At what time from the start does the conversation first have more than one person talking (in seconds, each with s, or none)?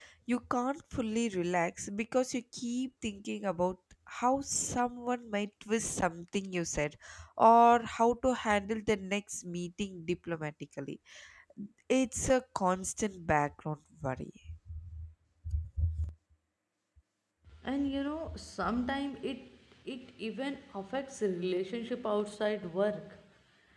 none